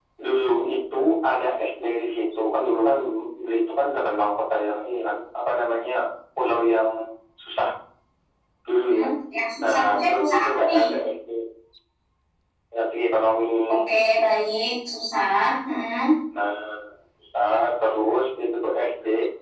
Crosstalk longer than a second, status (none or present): present